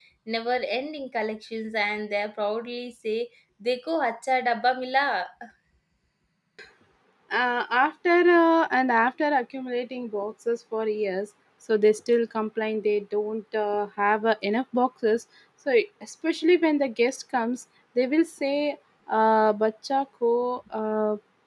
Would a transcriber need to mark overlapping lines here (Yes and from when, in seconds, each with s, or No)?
No